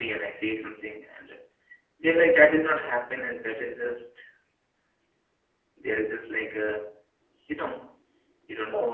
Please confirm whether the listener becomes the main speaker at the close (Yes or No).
No